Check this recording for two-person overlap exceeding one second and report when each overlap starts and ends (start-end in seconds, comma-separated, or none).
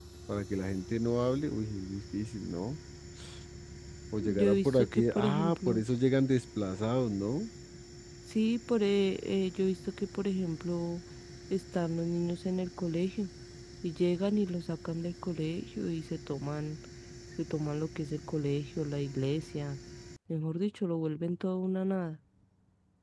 4.2-5.8